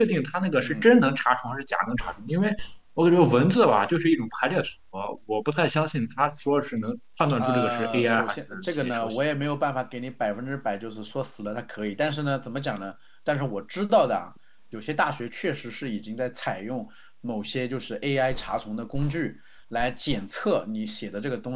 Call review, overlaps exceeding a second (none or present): present